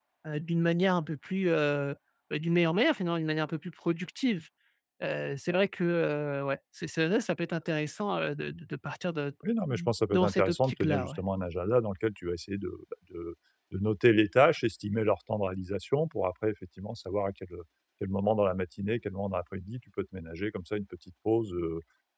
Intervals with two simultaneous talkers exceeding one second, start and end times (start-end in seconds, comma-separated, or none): 9.7-11.1